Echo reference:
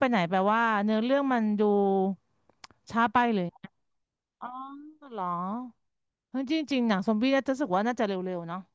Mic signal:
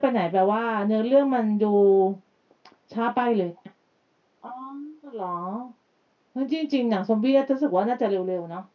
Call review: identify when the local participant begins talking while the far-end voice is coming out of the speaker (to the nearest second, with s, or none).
none